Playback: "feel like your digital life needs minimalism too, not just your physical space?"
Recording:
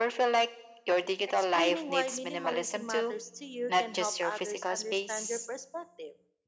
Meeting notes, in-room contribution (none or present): present